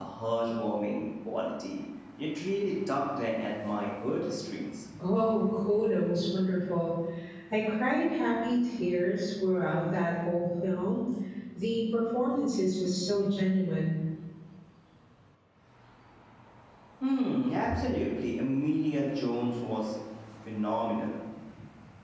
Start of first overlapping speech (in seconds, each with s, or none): none